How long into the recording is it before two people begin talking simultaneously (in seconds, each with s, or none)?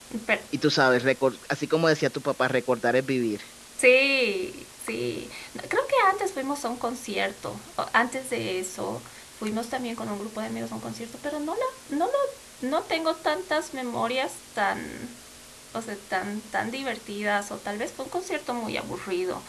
none